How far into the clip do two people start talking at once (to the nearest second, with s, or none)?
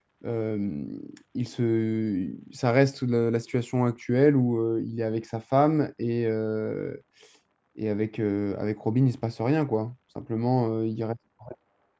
none